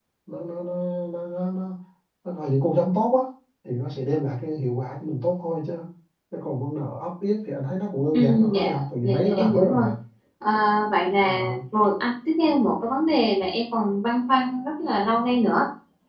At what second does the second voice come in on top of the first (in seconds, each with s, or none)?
8.1 s